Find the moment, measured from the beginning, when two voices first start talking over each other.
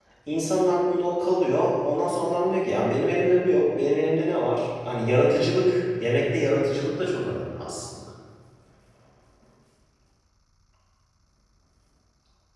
none

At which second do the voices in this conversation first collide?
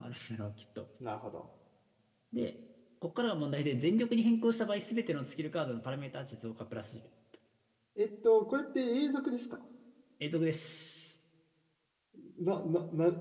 none

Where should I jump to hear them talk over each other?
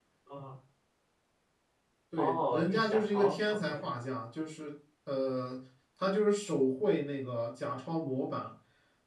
2.1 s

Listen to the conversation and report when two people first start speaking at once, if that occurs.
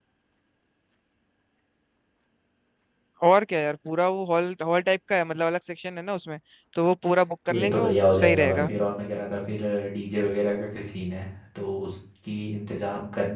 7.5 s

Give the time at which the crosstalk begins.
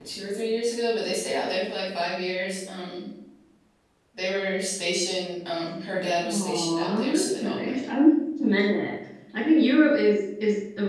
6.2 s

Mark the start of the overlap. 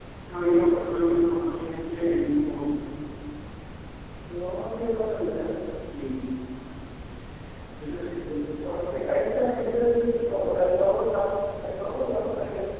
none

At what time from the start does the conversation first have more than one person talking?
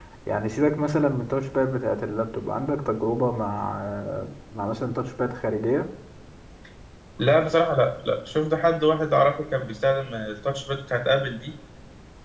none

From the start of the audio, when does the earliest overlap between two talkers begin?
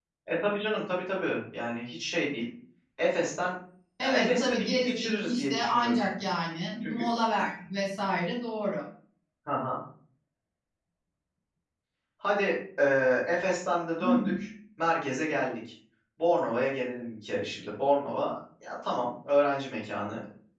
4.0 s

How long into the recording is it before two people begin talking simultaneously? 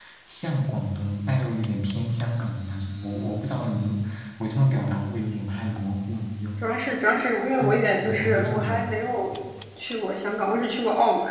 7.6 s

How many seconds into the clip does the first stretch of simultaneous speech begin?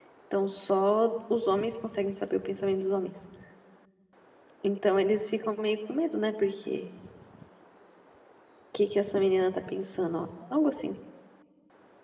none

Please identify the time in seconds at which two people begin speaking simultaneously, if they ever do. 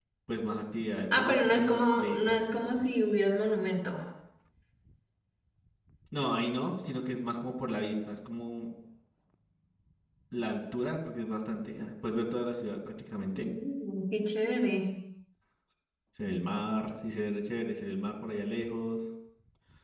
1.2 s

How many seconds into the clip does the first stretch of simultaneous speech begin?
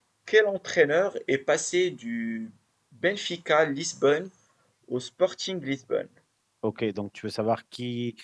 none

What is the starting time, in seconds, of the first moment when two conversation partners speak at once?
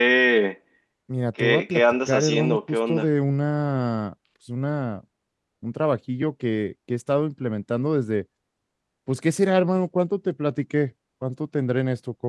1.4 s

